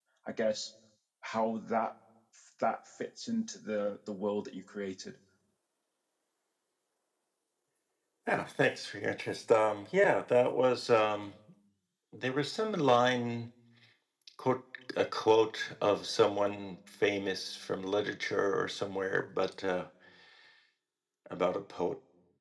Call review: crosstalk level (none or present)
none